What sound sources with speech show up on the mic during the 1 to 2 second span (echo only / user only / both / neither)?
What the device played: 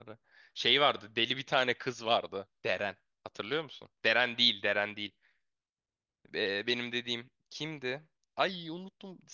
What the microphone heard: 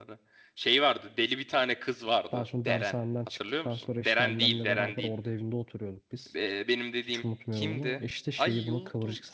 echo only